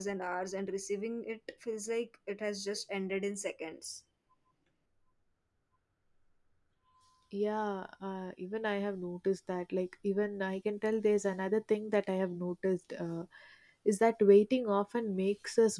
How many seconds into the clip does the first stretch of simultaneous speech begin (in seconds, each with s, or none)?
none